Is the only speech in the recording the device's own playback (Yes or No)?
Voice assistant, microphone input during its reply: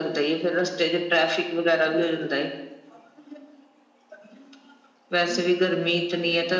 Yes